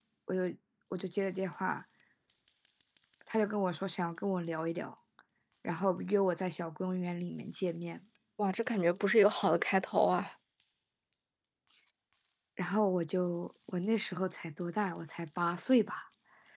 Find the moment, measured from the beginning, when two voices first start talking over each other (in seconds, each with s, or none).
none